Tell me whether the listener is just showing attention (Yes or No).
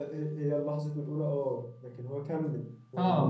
No